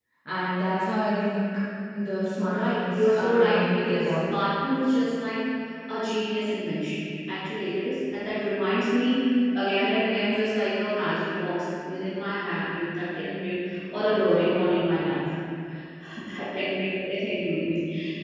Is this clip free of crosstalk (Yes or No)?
No